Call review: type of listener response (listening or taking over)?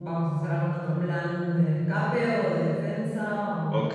taking over